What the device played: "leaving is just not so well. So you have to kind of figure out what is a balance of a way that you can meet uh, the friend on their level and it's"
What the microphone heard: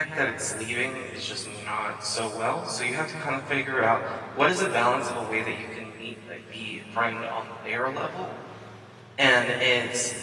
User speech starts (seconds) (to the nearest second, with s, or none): none